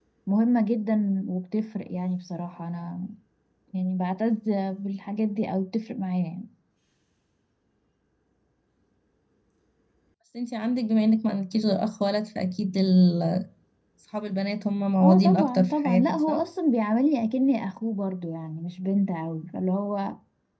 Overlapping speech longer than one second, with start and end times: 15.0-16.4

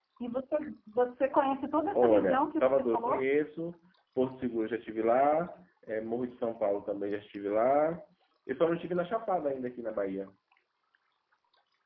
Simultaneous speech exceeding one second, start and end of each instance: 1.9-3.2

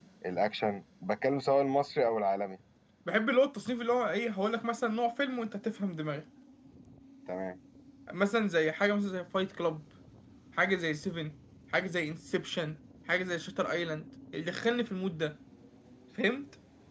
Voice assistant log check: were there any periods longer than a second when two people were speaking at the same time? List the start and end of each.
none

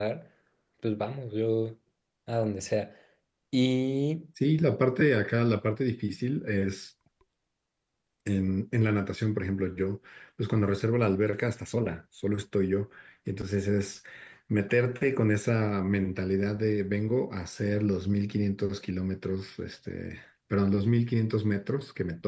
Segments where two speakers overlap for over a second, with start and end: none

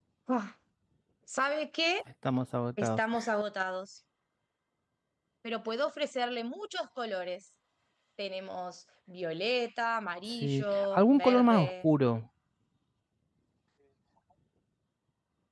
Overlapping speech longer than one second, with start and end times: 10.4-11.7

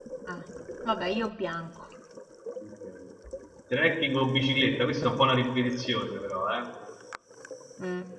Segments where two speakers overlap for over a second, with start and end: none

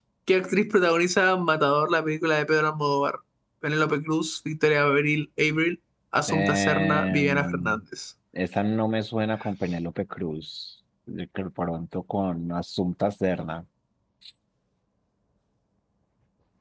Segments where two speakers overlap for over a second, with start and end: 6.3-7.8

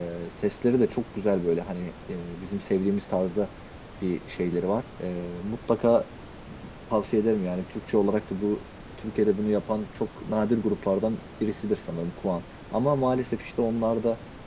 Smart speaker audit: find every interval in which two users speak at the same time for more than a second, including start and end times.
none

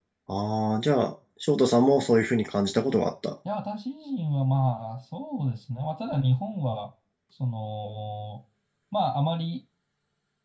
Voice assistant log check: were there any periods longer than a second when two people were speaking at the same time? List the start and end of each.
none

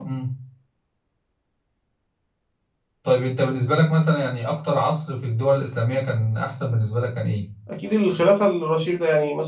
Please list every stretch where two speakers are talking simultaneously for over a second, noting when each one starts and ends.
none

